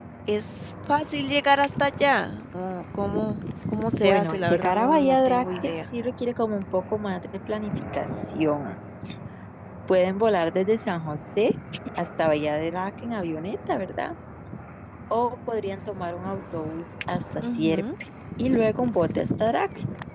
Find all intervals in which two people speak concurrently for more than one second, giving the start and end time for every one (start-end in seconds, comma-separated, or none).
4.0-5.7